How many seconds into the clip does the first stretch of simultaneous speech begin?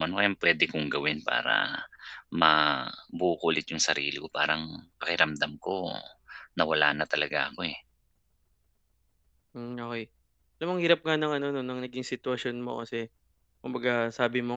none

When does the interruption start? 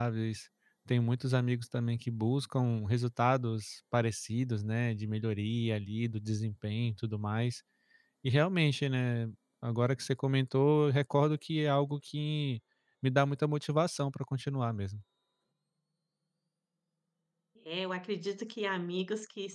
none

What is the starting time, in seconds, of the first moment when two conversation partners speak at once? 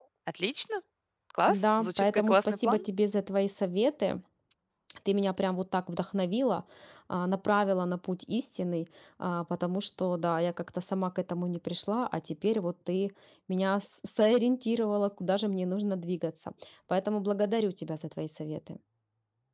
1.5 s

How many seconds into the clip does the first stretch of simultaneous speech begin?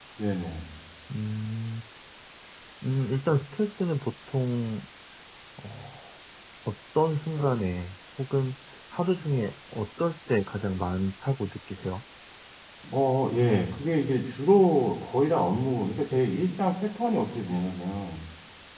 none

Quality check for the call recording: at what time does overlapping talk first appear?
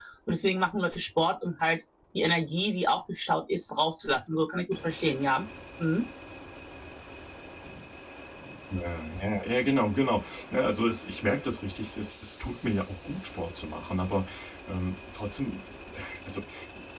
none

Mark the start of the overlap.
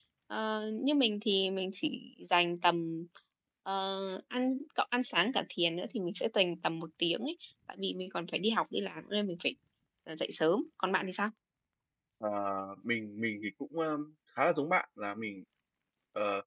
none

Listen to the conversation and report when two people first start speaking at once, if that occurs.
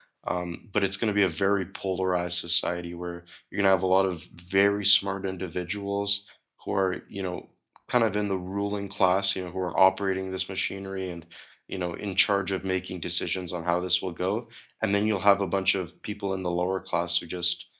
none

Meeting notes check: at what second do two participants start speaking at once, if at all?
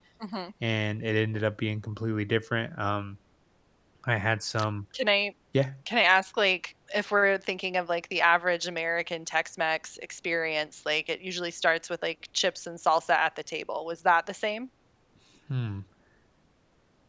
none

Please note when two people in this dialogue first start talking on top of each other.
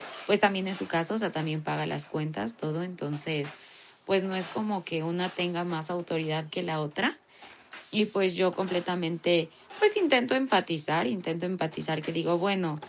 none

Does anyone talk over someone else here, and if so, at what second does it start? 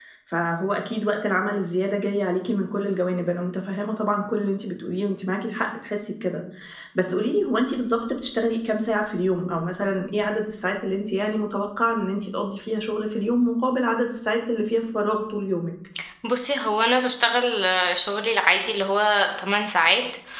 none

